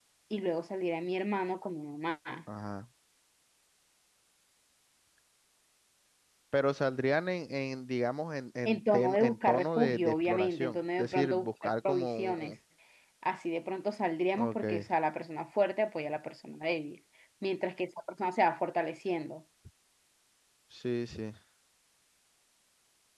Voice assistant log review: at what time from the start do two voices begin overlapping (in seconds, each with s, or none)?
8.7 s